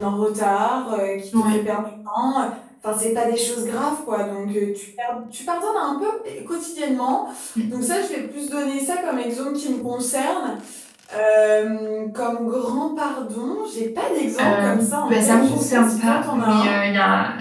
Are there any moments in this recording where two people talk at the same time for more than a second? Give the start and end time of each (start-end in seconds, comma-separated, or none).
15.1-16.8